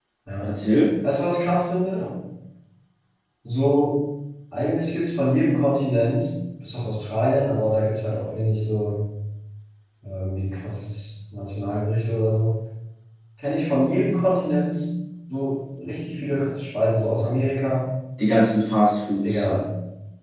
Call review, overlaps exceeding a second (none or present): none